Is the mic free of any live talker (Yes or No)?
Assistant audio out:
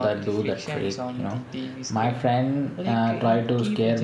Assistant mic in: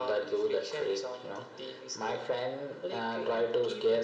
Yes